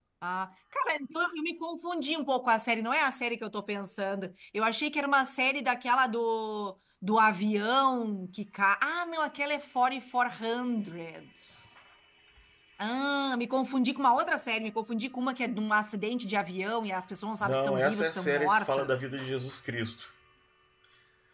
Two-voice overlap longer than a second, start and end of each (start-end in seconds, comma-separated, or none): 17.4-18.9